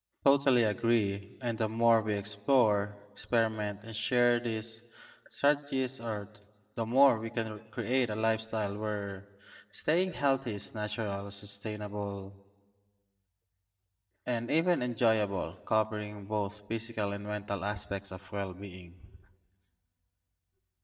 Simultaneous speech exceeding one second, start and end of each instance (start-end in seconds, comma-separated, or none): none